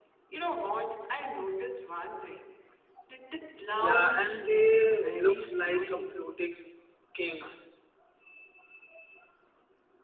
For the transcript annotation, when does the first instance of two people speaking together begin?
3.8 s

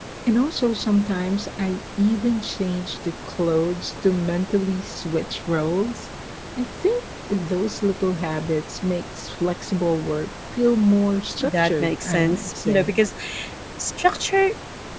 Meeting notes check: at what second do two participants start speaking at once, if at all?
11.4 s

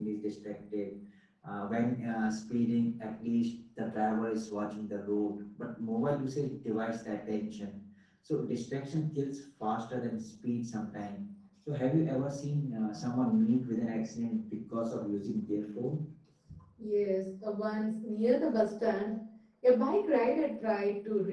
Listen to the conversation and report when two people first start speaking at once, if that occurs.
none

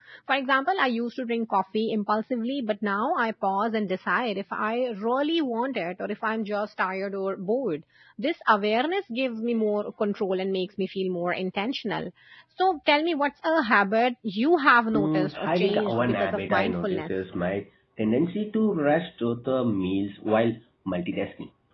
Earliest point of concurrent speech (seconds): 14.9 s

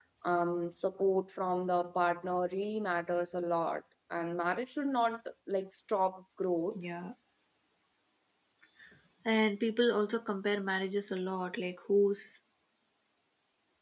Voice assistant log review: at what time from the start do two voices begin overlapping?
none

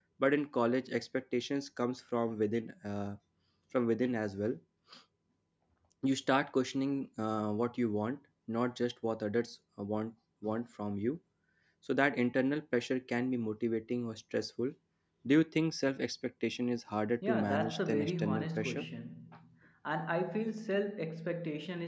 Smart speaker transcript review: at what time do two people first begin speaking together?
17.2 s

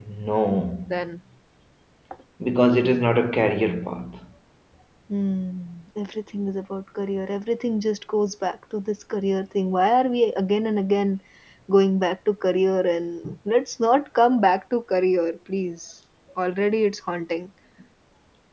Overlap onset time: none

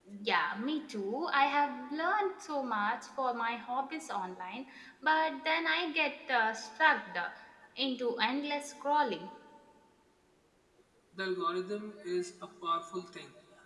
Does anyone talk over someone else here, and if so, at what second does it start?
none

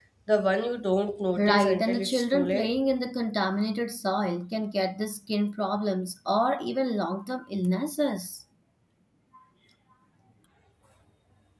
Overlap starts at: 1.4 s

